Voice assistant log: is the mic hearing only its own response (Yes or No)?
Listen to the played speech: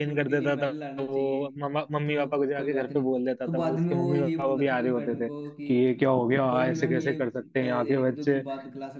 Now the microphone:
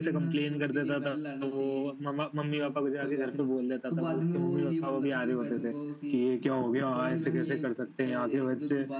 Yes